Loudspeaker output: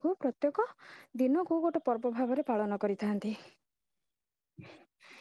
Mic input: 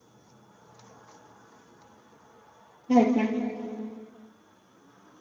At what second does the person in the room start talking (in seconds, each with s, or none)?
3.0 s